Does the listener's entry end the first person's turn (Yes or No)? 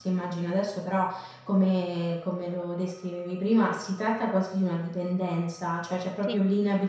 No